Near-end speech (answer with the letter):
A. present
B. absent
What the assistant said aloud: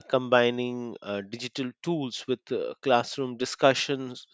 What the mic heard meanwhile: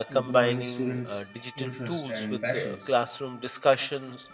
A